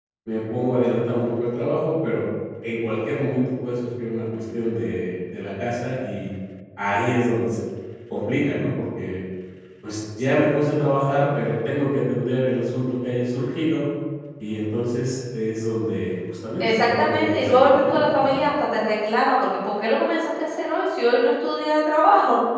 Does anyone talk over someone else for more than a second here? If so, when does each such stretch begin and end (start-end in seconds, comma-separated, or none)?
16.6-18.5